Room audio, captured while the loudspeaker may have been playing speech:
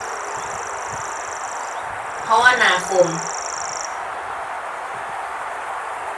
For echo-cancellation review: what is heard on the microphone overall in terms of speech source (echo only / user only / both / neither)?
user only